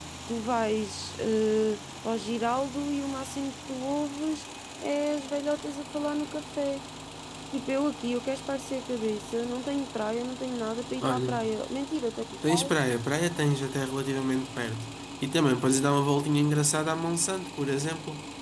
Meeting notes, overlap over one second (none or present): none